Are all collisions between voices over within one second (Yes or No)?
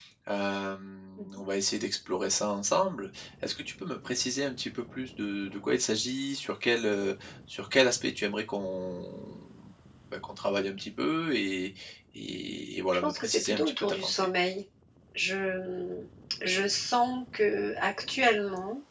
No